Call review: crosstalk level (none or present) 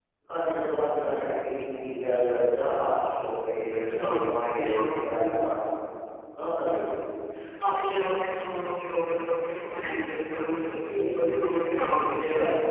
present